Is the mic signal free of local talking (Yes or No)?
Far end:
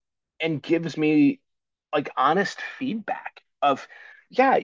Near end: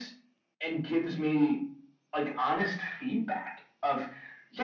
Yes